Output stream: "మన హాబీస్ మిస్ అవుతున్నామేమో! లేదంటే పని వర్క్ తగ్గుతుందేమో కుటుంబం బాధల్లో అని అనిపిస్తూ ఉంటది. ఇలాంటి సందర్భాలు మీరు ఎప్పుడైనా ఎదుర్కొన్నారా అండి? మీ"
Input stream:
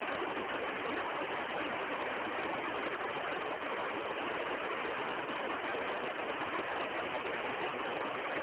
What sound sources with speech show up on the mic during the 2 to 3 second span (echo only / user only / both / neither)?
neither